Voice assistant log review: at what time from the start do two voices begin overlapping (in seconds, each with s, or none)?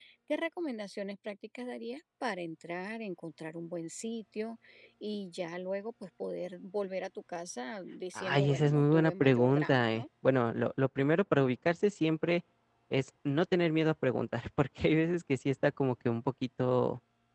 8.2 s